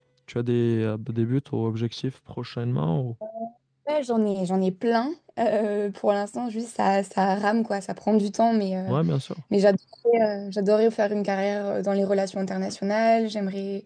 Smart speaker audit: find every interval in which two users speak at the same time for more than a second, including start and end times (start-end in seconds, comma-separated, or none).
none